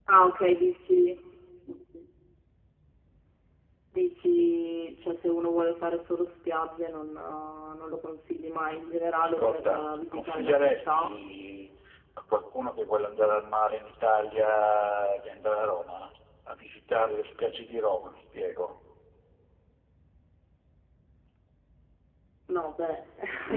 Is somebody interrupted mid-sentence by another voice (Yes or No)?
Yes